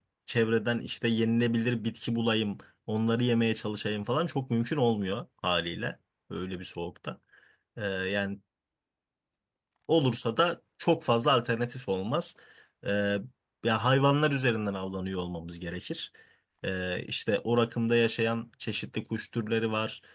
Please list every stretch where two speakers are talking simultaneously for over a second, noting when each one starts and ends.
none

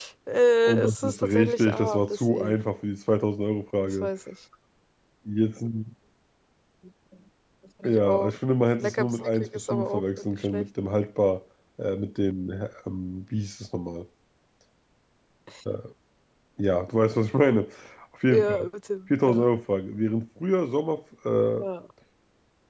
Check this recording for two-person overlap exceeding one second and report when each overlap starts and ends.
0.6-2.5, 8.8-10.7

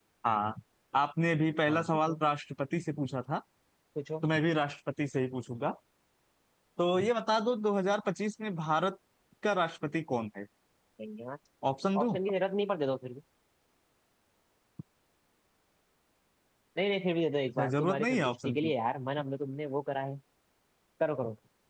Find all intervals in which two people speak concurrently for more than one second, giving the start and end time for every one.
17.5-18.7

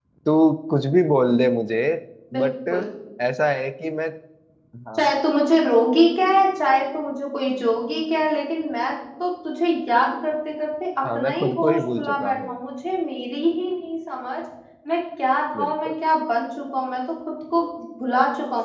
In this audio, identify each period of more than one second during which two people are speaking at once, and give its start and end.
11.2-12.6

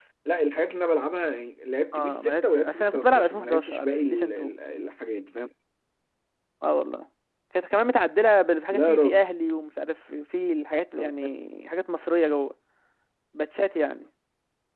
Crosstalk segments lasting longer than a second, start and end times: 1.9-4.5

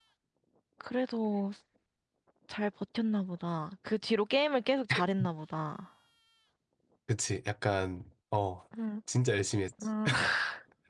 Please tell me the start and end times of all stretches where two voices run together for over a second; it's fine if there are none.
none

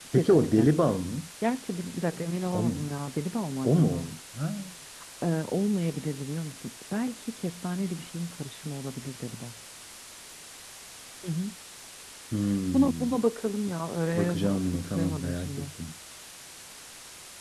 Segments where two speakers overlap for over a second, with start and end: 14.2-15.7

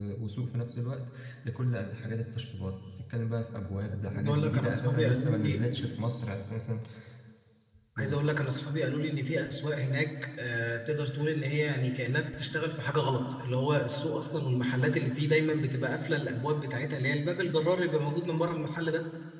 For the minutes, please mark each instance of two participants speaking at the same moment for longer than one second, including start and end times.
4.1-5.6

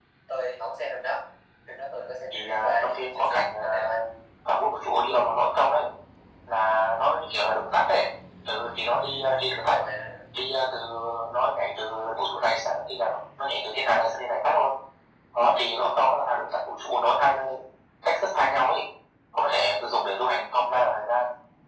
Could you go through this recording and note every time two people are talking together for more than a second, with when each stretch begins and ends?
2.3-4.0

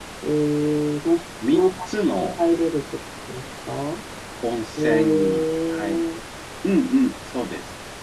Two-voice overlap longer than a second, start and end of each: 4.8-6.0

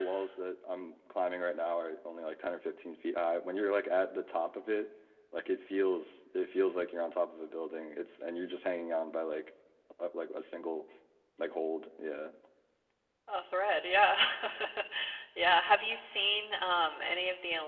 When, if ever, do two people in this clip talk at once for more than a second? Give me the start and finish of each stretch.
none

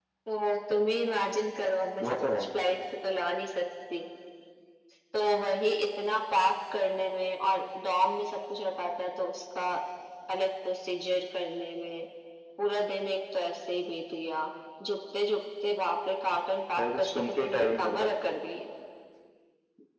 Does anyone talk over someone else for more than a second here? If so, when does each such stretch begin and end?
16.8-18.1

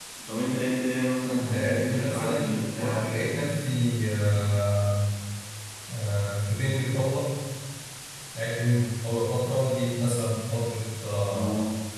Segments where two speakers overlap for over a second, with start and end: 1.4-3.1

